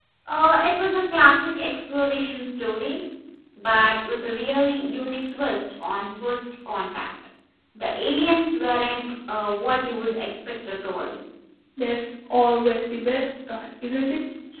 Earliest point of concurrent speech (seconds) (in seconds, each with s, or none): none